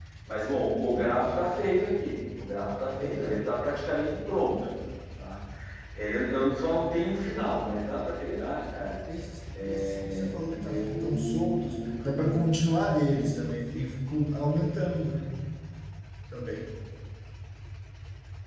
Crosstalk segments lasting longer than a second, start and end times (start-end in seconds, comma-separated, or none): 9.7-12.4